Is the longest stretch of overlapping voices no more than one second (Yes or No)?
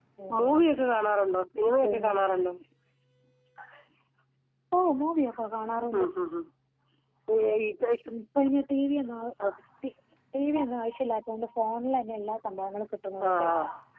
Yes